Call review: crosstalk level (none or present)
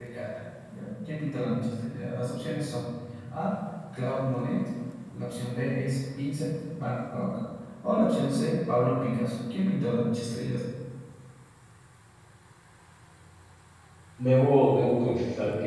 none